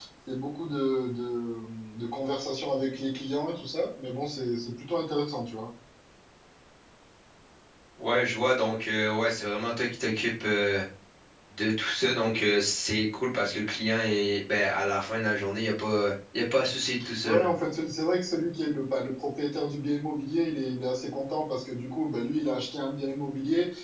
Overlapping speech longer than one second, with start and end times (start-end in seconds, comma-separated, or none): none